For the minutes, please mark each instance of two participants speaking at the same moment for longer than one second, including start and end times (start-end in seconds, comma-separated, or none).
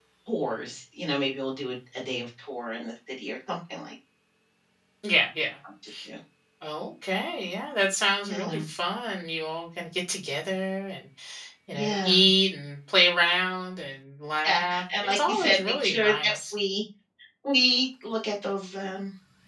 14.4-16.5